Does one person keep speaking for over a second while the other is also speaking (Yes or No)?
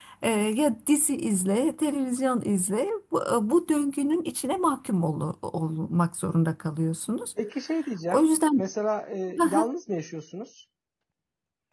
No